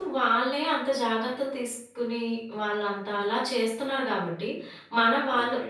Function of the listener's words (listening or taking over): listening